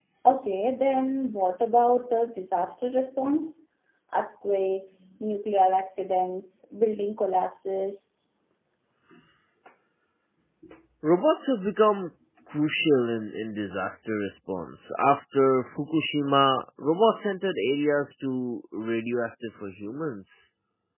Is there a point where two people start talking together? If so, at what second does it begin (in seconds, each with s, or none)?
none